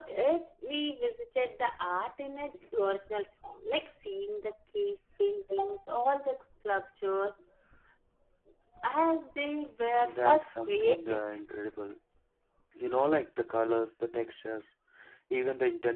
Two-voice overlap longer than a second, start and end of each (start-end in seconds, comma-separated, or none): 10.0-11.3